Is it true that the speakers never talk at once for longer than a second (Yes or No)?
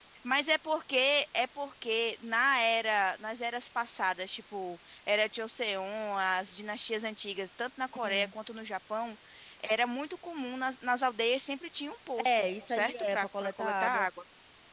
No